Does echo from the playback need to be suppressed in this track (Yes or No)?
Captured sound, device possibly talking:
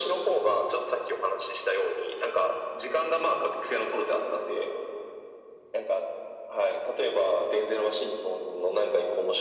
Yes